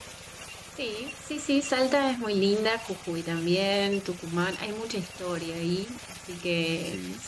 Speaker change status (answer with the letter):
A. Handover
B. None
B